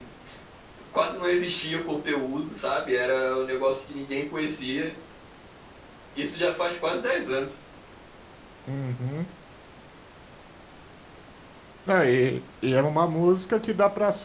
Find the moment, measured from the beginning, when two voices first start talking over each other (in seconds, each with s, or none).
none